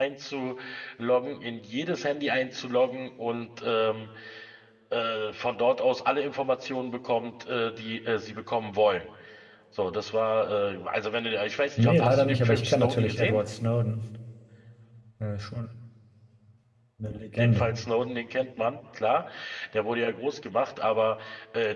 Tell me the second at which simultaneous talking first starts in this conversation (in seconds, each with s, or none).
11.8 s